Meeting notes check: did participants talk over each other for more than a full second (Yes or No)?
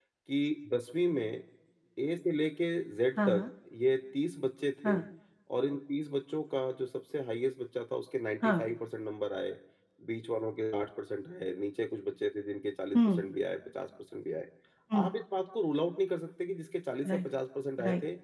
No